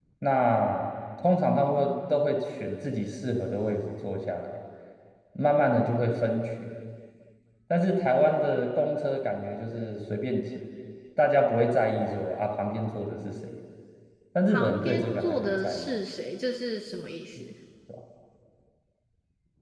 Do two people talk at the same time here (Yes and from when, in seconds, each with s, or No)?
Yes, from 14.5 s